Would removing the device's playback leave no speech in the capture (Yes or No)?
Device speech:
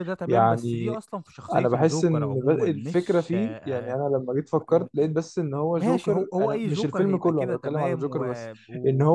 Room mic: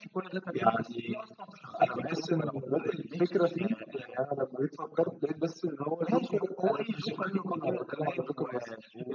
Yes